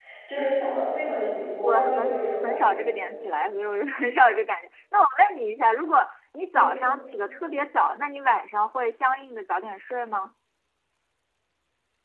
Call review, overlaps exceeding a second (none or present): present